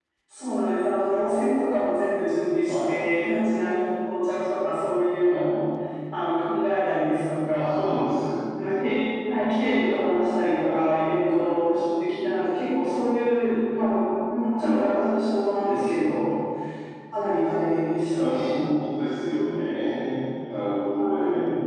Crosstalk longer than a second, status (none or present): none